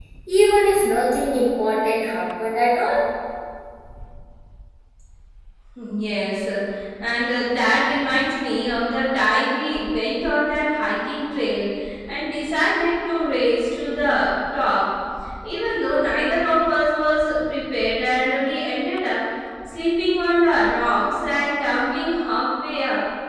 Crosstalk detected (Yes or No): No